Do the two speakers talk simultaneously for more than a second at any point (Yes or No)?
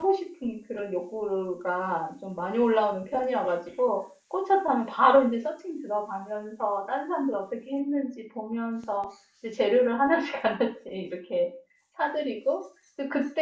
No